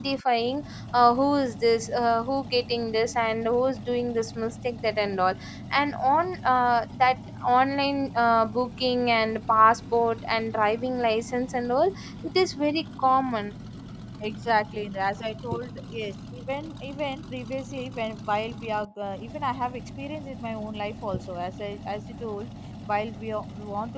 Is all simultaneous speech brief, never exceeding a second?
Yes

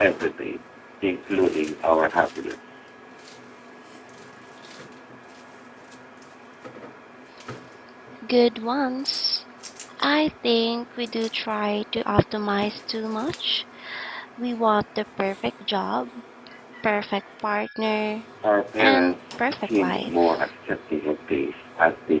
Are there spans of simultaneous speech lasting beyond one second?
Yes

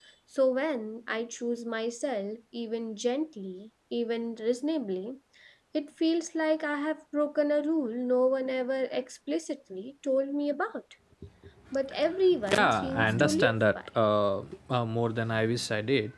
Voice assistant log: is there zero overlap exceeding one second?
No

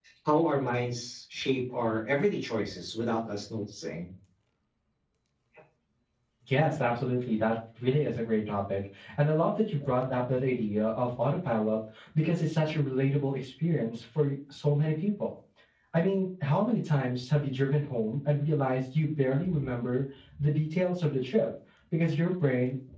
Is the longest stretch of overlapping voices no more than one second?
Yes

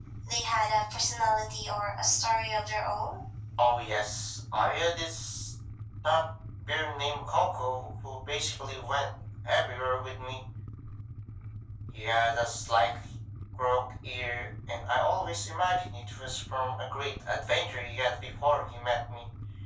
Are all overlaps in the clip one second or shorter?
Yes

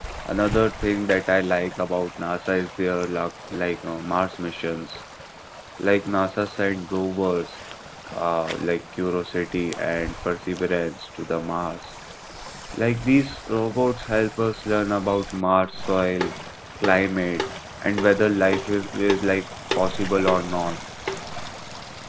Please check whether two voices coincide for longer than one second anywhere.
No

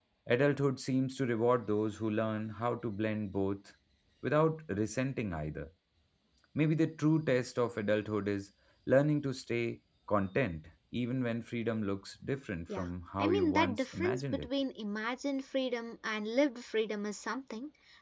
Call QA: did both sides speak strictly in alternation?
No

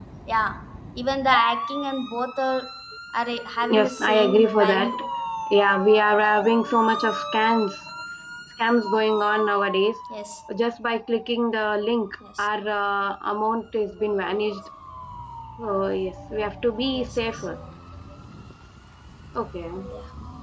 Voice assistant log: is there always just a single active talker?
No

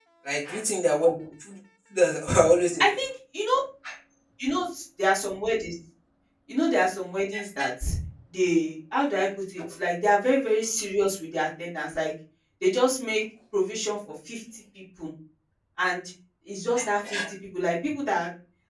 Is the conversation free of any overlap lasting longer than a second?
Yes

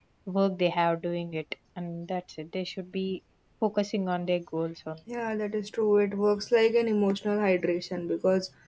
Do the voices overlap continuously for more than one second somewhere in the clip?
No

